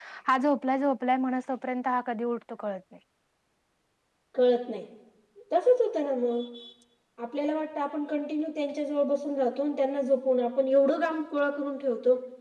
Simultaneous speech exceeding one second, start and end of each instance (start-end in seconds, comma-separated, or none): none